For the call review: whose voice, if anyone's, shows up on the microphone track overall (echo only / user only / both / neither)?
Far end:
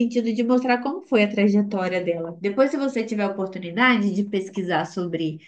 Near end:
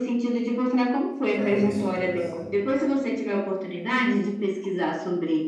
both